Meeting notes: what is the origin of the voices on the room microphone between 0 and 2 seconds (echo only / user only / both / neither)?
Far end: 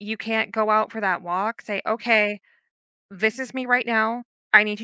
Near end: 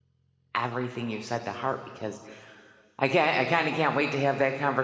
user only